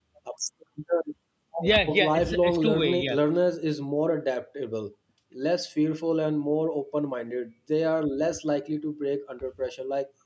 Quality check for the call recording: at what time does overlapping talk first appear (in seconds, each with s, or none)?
1.9 s